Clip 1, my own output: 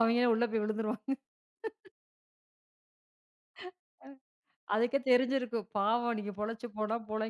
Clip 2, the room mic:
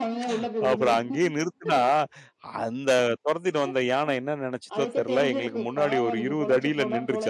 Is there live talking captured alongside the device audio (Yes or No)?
Yes